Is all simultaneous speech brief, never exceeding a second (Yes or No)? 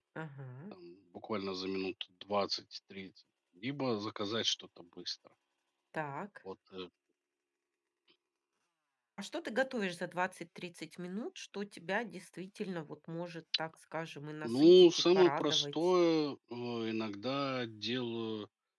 No